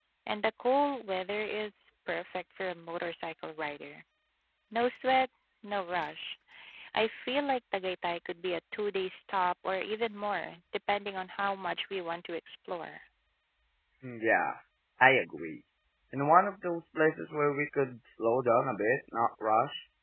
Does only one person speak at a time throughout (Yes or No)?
Yes